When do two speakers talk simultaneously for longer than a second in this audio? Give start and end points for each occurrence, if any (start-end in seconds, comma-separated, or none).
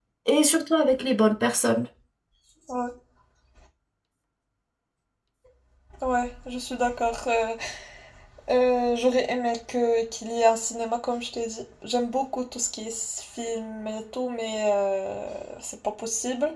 none